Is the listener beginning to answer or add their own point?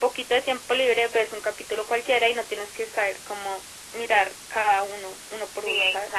Yes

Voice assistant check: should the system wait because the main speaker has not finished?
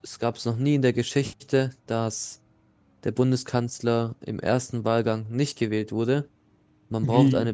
Yes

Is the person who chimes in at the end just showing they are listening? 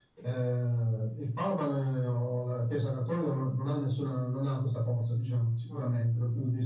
Yes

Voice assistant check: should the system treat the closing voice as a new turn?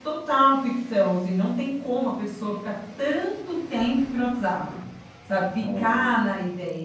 No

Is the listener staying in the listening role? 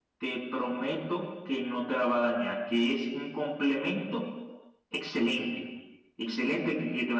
Yes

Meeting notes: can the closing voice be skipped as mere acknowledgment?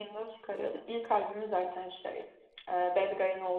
Yes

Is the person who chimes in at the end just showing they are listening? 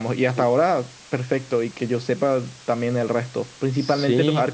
Yes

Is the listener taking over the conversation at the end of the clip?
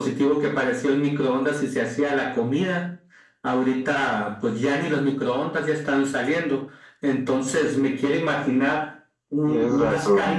No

